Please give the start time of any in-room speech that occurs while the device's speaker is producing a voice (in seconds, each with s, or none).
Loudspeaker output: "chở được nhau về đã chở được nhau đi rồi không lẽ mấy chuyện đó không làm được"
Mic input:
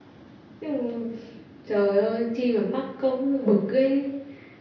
0.6 s